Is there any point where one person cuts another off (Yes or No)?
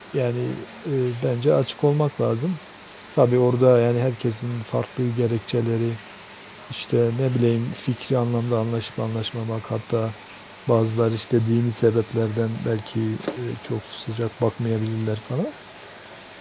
No